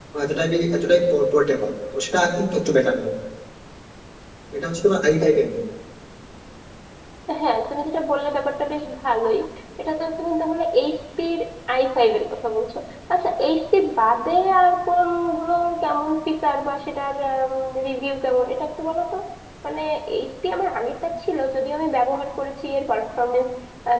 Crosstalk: none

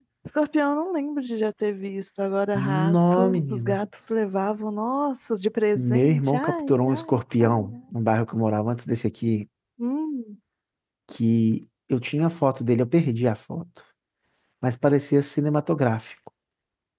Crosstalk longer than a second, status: present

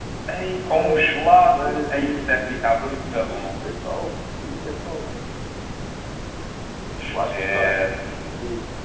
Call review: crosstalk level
present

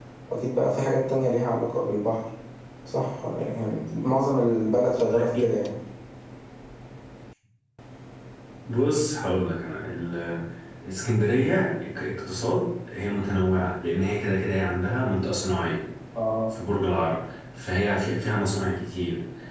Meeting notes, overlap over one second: none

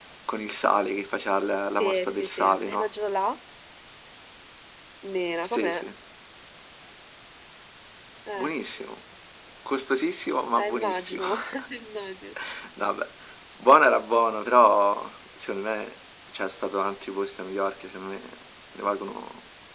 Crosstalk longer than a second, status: present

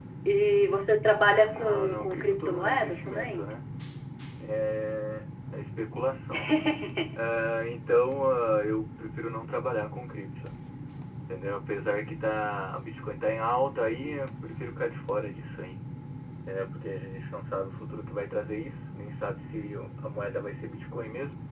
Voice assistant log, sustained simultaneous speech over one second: present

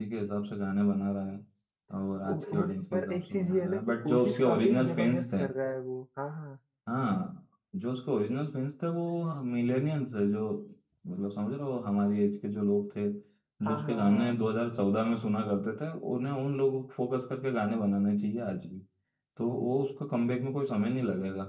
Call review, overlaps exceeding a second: present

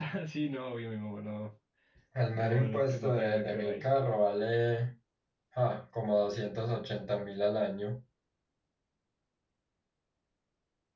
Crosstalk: present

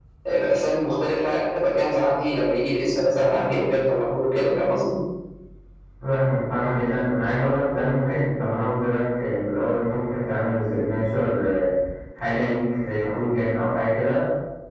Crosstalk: none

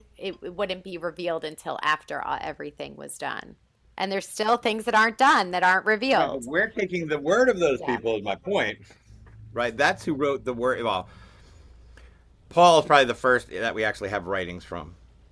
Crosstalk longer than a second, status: none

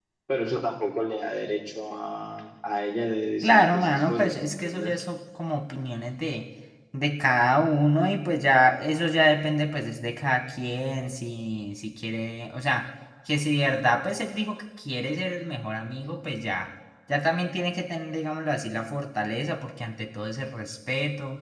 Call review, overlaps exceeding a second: present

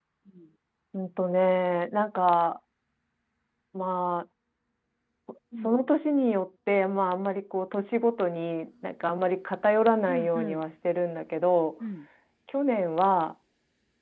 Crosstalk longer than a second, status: none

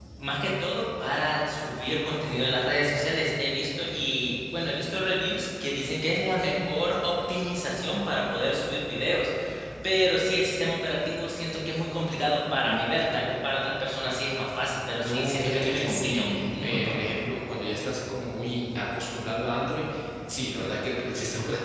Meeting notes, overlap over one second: present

